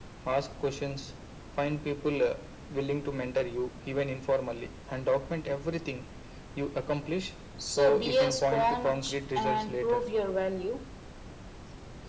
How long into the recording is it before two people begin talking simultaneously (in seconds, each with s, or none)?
7.6 s